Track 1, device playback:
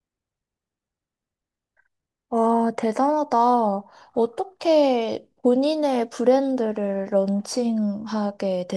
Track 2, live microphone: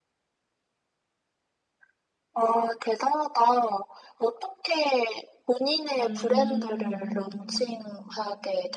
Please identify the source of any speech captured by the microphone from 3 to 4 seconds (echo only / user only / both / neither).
echo only